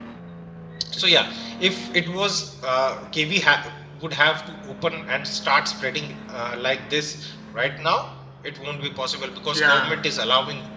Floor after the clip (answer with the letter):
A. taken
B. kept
B